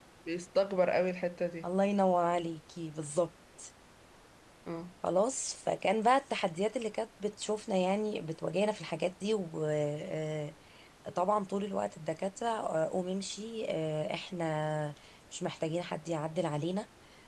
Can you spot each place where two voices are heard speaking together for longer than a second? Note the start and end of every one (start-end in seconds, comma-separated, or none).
none